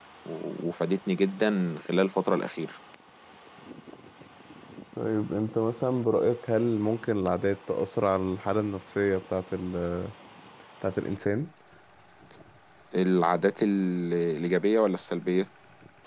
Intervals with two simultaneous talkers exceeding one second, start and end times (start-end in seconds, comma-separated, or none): none